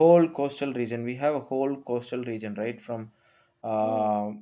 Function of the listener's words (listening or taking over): listening